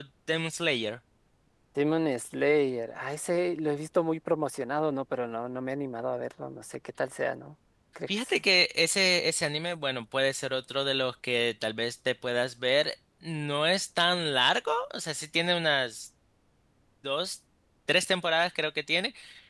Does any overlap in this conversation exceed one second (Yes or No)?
No